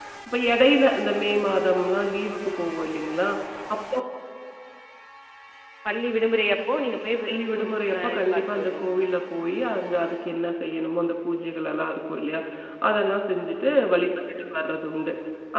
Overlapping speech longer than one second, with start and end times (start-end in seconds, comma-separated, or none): 7.3-8.9